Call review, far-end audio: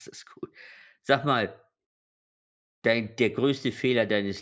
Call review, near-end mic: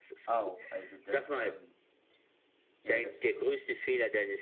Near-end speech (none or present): present